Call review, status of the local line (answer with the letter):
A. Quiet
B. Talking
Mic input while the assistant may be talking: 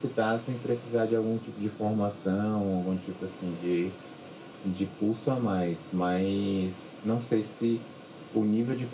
A